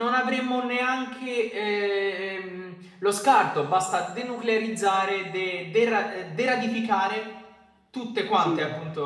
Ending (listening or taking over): taking over